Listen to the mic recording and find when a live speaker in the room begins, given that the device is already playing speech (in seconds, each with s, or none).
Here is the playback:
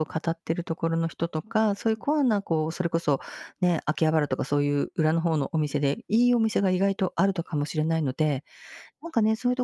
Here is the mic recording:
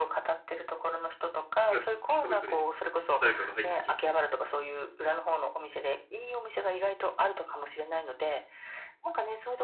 1.6 s